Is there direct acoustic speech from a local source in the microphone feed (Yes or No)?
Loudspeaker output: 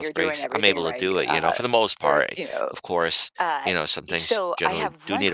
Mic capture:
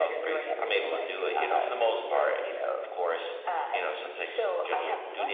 No